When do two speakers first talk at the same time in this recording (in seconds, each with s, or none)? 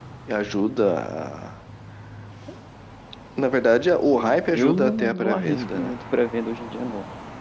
4.2 s